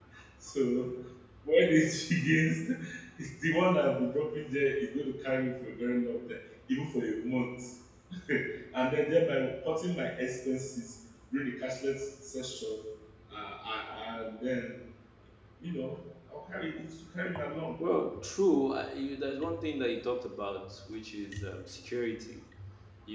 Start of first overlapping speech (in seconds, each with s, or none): none